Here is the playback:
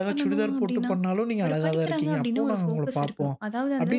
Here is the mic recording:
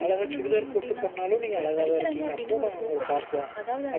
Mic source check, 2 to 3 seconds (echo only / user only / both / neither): echo only